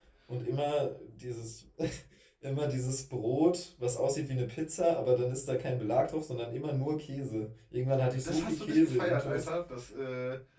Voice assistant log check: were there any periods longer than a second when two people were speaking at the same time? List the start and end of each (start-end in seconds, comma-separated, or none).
8.2-9.5